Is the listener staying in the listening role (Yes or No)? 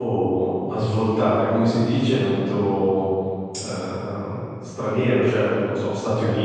Yes